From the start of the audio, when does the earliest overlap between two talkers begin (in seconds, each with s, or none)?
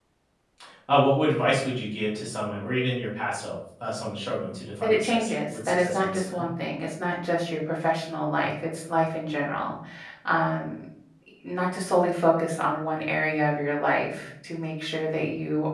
4.8 s